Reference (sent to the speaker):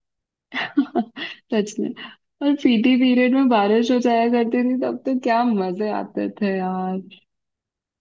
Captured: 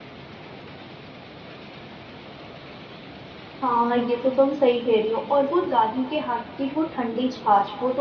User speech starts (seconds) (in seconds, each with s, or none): 3.6 s